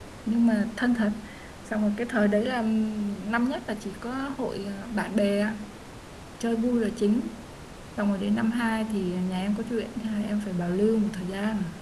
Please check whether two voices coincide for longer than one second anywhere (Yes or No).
No